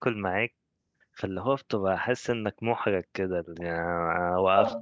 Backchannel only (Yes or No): Yes